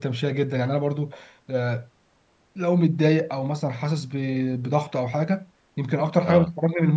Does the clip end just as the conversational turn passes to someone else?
No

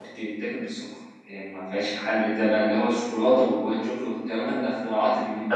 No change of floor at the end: No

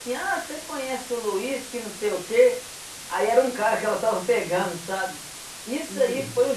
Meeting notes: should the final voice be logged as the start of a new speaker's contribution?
No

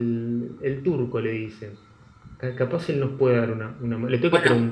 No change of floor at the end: No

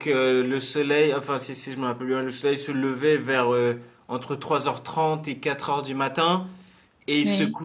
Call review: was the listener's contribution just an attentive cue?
Yes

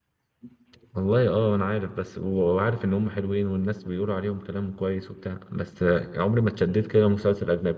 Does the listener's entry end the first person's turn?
No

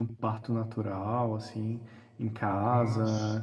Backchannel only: Yes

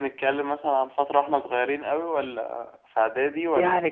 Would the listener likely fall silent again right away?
No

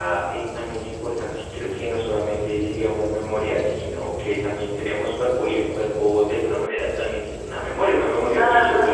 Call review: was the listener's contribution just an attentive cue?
No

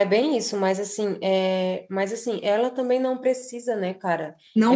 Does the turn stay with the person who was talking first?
Yes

